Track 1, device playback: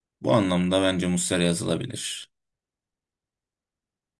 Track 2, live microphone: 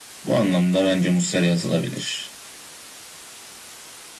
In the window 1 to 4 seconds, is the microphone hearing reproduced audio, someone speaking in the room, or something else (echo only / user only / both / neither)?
echo only